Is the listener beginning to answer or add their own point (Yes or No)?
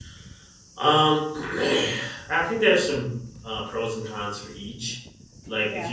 No